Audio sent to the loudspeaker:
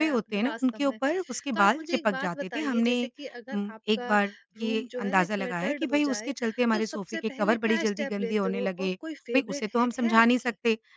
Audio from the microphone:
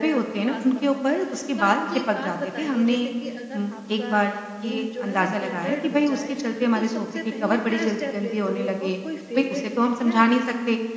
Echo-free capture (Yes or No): No